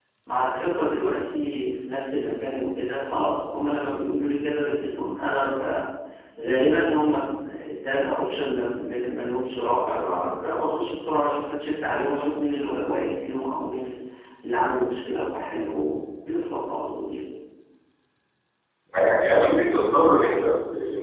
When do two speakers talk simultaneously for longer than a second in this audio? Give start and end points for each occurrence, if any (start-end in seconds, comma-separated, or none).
none